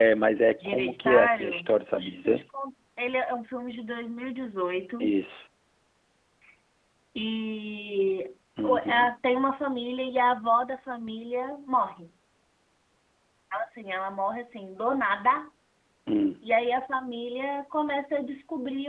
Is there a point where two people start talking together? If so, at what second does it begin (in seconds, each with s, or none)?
0.7 s